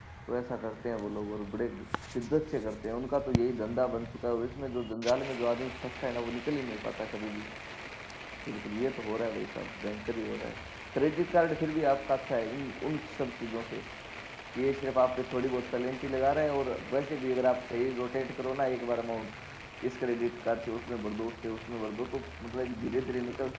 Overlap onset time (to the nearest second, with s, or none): none